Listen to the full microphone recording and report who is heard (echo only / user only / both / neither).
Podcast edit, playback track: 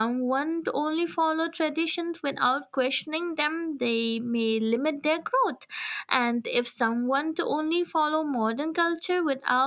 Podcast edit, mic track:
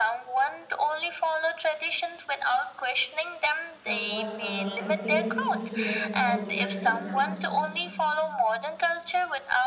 both